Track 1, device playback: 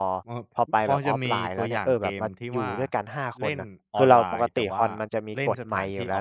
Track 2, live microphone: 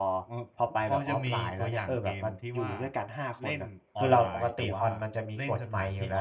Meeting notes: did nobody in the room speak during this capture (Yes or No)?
Yes